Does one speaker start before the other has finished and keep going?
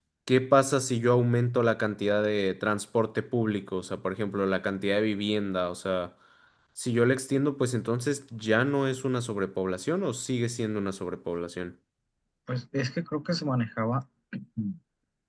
No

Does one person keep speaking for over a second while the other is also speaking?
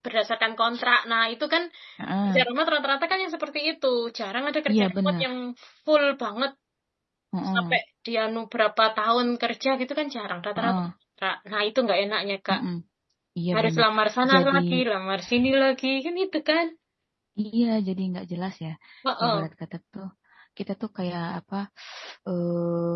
No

